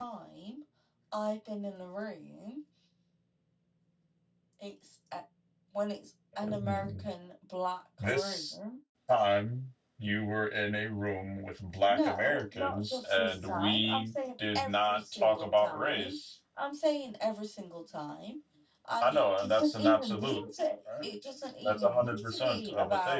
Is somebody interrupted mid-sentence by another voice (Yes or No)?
Yes